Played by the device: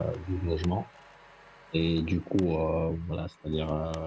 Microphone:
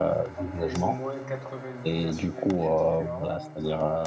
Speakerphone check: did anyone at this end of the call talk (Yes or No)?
Yes